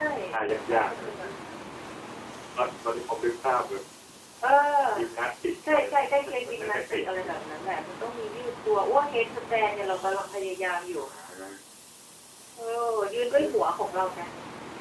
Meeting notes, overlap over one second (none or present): present